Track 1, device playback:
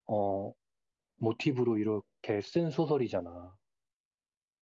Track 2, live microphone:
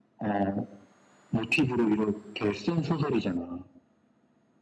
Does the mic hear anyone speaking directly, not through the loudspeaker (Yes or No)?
No